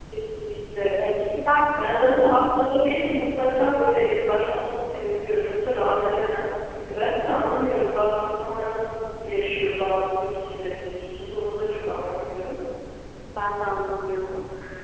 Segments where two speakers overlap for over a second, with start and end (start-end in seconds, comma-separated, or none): none